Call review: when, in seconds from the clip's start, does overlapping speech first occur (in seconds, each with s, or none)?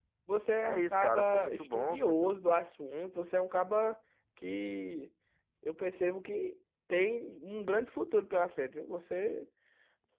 0.6 s